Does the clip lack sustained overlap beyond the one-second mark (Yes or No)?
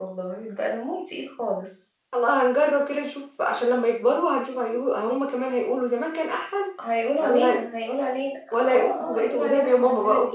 No